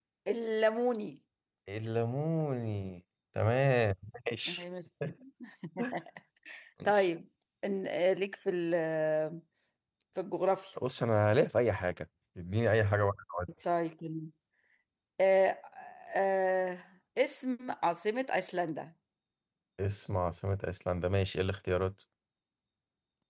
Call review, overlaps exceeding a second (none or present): none